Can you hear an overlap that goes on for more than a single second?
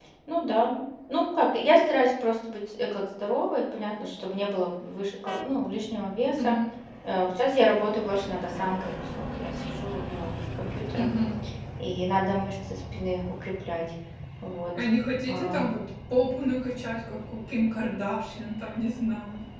No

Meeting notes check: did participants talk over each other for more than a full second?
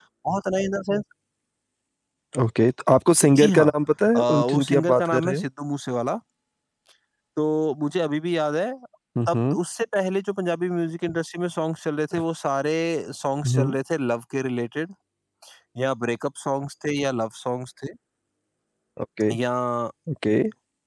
Yes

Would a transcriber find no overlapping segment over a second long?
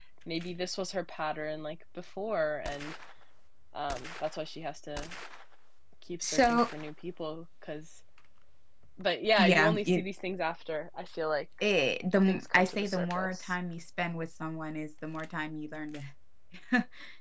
No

